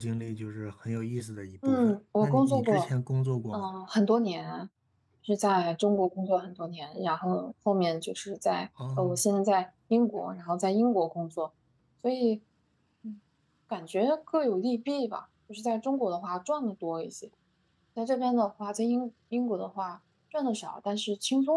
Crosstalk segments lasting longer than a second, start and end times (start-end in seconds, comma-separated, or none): 1.6-2.9